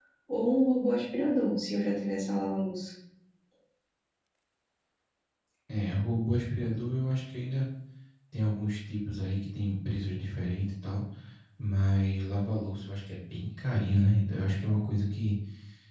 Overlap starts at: none

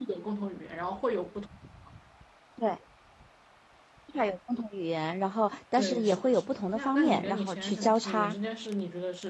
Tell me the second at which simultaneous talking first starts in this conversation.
5.8 s

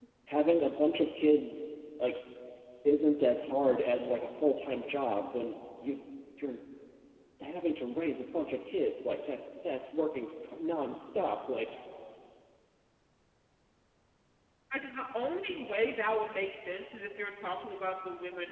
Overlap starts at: none

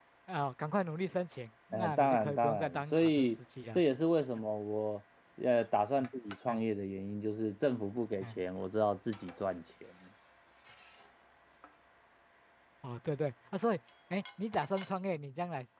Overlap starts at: 1.7 s

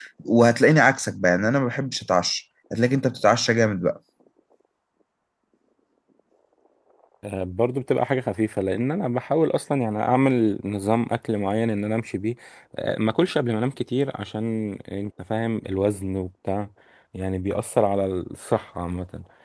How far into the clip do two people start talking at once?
none

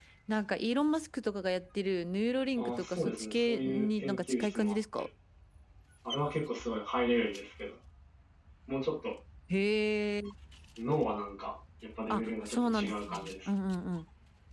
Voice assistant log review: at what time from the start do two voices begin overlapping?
2.6 s

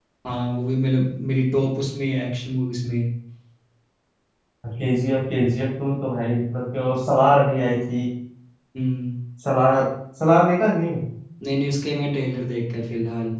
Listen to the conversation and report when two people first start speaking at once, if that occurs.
none

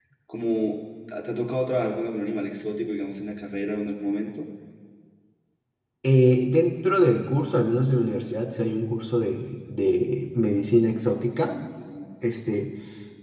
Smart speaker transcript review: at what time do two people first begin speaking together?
none

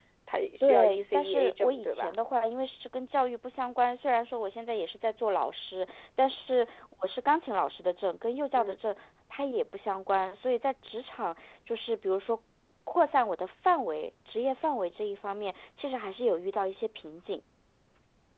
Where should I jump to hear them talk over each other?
0.6 s

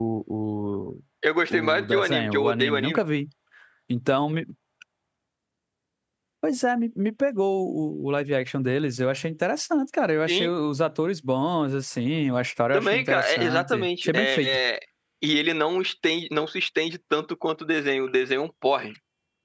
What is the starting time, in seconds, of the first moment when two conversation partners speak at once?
1.5 s

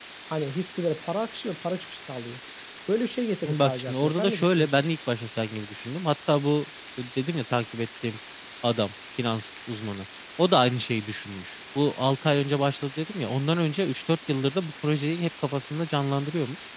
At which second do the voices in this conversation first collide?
3.4 s

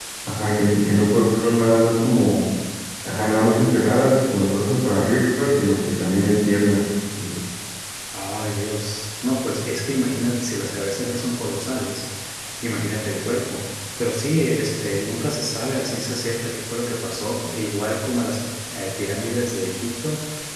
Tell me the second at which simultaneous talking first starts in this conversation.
none

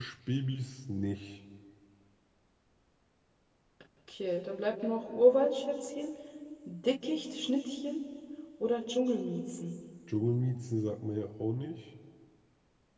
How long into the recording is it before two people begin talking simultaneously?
none

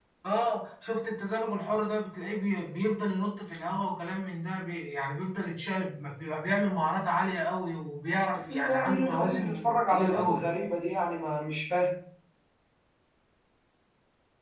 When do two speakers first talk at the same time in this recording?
8.3 s

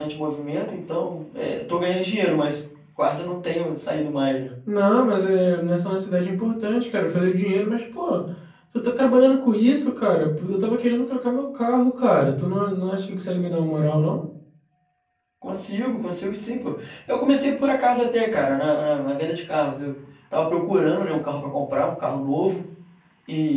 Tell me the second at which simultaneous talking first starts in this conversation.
none

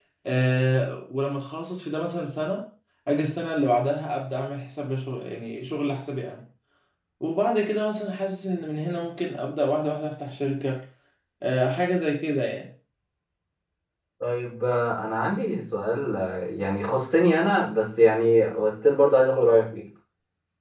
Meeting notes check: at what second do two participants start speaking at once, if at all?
none

